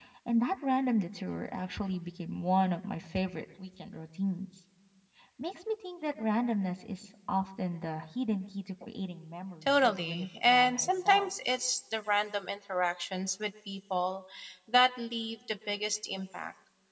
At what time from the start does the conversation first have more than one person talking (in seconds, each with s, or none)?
9.6 s